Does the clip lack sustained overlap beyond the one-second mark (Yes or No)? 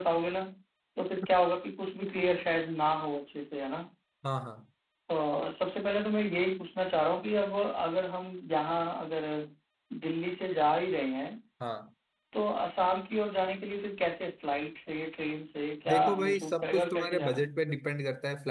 No